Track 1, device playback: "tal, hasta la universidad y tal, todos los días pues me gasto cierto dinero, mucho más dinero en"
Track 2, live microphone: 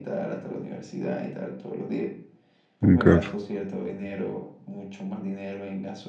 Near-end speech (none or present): present